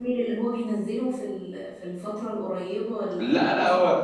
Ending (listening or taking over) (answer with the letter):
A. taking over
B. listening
A